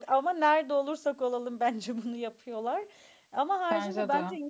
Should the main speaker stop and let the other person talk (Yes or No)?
No